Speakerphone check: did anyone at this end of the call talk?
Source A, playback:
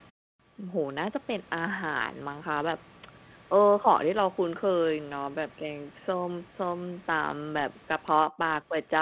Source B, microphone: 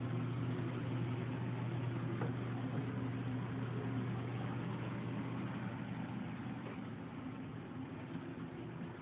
No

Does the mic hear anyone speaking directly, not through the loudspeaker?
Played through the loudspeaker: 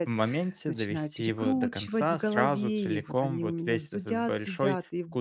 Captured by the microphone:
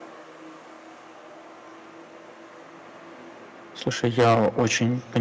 Yes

